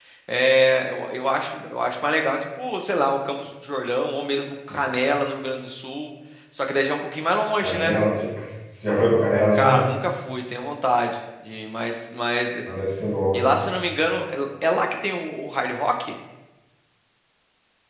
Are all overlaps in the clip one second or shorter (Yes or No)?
Yes